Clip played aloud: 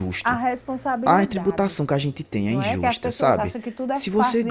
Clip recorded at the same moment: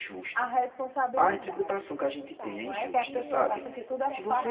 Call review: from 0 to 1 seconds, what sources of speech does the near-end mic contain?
echo only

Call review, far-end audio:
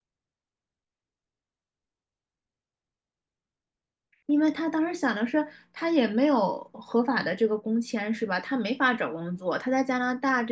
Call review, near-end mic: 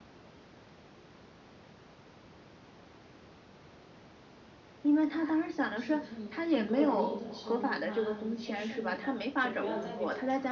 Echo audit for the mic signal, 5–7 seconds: both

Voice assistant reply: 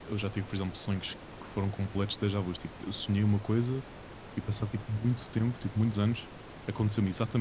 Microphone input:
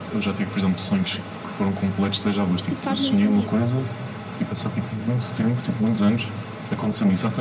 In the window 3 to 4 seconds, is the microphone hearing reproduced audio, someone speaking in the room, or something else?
both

